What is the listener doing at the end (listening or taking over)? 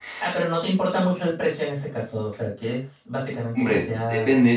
taking over